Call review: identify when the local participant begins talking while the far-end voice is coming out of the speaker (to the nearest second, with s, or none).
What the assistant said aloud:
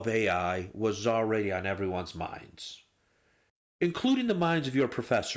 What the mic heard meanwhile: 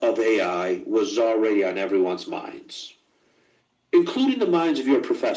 none